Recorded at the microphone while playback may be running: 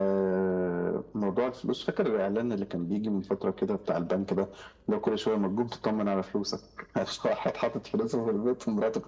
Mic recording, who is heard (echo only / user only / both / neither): echo only